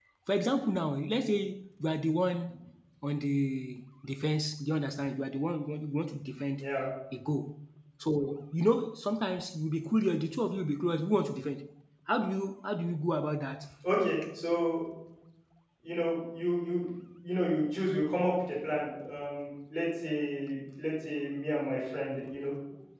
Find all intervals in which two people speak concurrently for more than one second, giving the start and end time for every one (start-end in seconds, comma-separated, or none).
none